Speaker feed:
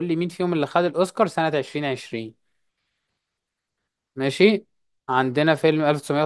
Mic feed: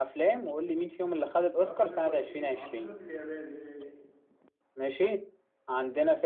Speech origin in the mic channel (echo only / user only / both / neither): both